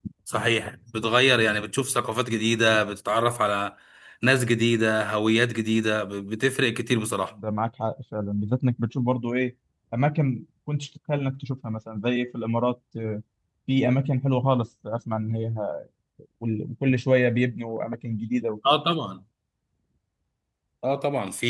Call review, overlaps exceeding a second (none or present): none